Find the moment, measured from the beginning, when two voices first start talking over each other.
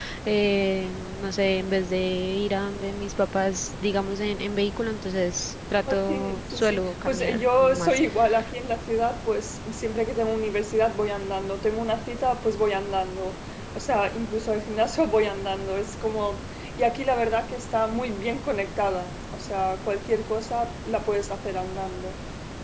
5.9 s

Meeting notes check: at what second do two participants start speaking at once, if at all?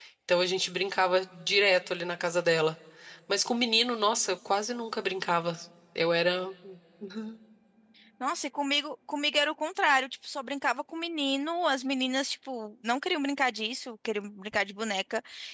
none

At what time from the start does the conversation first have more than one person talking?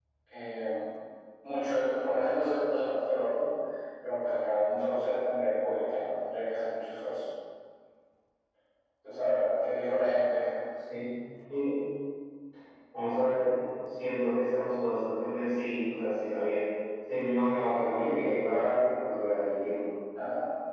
none

